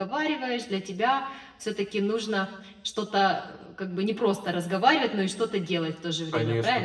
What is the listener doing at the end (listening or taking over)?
taking over